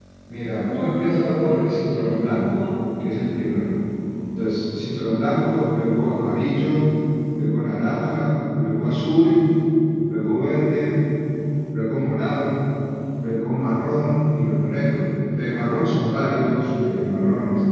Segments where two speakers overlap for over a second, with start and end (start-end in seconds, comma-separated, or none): 0.6-2.7